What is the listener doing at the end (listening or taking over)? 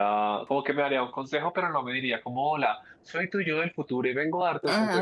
taking over